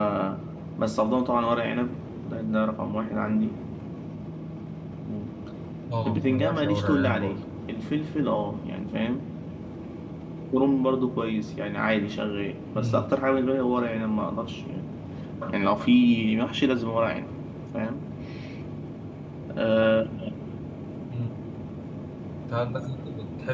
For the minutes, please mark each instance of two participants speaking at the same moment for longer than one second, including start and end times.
6.1-7.4

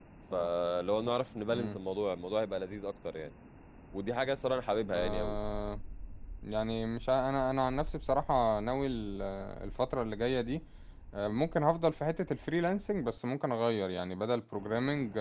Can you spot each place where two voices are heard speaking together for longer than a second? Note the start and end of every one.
none

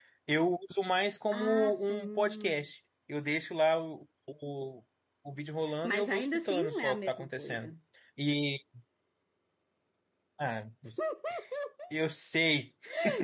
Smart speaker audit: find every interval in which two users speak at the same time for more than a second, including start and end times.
1.3-2.6, 5.8-7.7

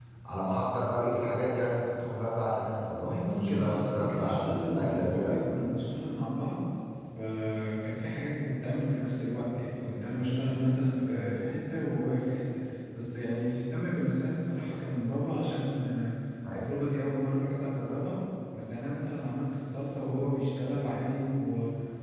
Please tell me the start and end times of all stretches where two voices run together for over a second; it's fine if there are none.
2.9-5.3

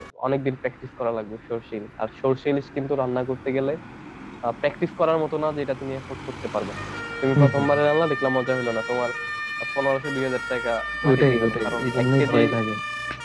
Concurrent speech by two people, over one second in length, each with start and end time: 11.1-12.4

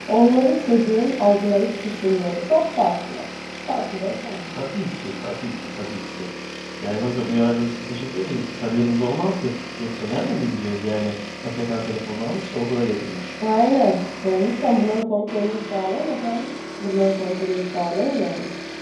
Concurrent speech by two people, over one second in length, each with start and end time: none

